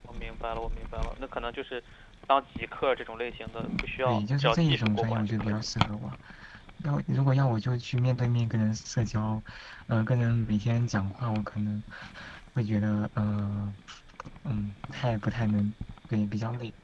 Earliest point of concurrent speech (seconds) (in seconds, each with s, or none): 4.0 s